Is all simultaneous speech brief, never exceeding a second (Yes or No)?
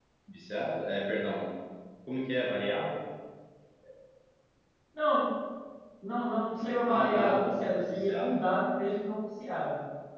No